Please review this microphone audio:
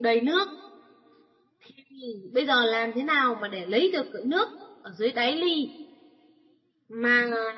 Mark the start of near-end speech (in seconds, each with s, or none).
none